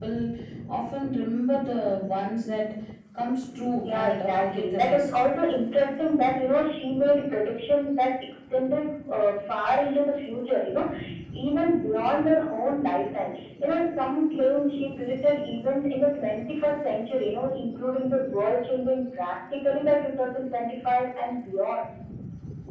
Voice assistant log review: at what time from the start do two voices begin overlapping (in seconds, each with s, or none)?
3.8 s